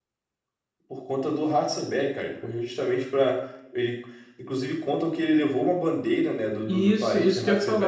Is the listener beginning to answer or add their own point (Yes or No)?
Yes